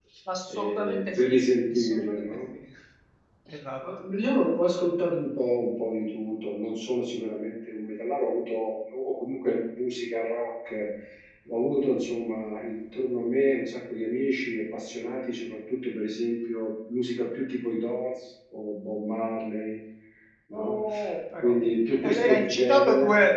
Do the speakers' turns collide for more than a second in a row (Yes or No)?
Yes